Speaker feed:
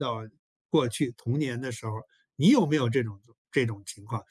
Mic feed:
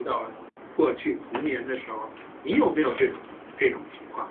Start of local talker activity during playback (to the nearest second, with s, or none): none